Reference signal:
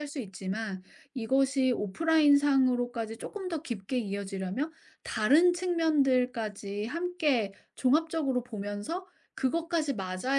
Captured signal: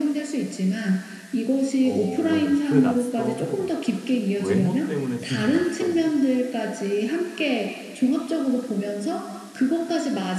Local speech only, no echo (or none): 어 맞아요. 그 낯섦은 외모 때문에 생긴 낯섦이에요.